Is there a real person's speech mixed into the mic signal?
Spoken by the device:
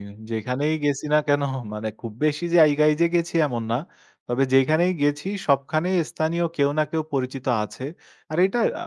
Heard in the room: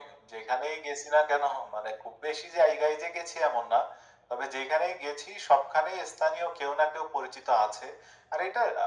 No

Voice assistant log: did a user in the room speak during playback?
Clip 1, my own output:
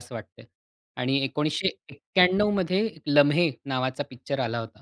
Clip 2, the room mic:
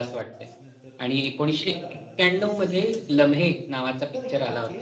Yes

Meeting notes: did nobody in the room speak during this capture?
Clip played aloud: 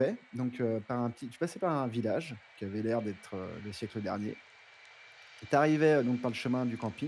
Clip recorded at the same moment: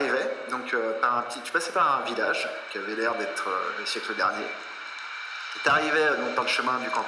Yes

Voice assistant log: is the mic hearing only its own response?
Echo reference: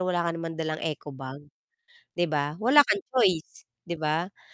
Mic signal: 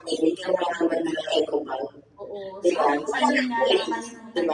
No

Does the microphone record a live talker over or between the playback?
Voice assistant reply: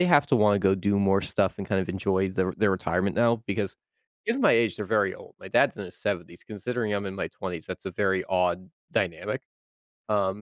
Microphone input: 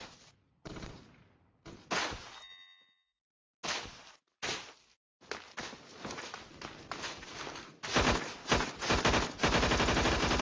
No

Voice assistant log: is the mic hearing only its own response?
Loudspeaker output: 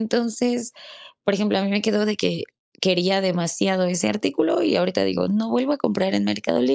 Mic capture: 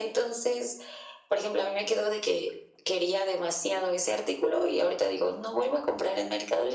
Yes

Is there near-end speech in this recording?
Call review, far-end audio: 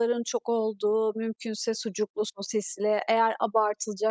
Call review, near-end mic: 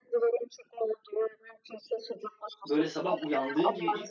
Yes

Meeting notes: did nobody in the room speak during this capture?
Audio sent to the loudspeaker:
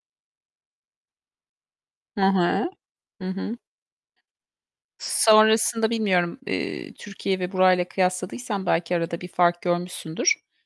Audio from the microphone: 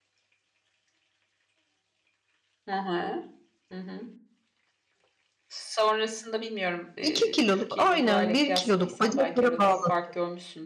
No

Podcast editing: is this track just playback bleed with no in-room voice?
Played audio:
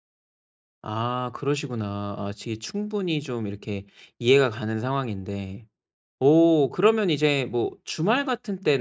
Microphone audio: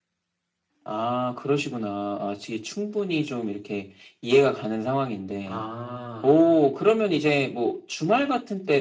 No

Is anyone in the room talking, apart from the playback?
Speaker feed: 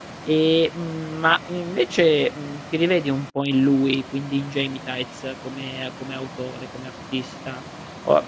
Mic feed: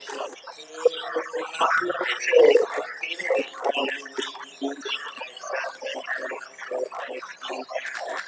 No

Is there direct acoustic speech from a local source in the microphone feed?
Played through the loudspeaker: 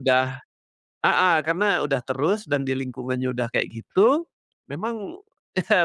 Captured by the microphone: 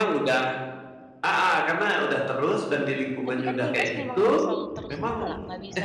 Yes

